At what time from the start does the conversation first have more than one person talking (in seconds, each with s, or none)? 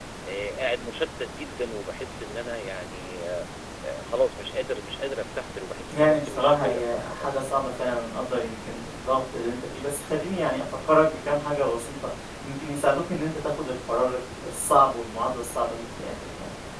5.9 s